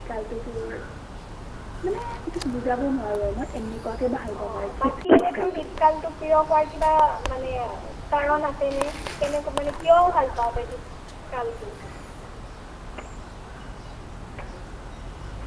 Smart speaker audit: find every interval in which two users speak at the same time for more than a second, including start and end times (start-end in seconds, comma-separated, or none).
4.4-5.6